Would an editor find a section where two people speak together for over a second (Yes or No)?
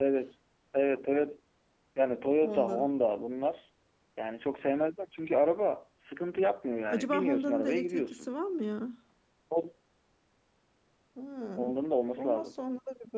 Yes